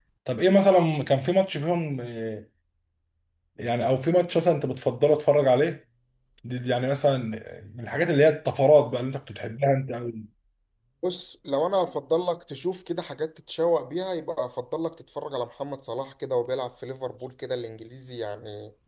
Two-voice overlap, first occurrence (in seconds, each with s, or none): none